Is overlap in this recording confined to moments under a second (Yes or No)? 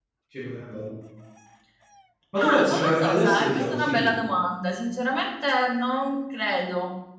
No